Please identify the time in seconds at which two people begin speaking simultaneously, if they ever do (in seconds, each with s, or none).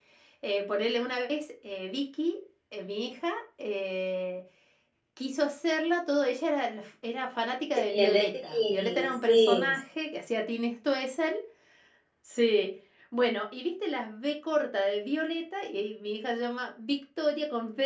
7.9 s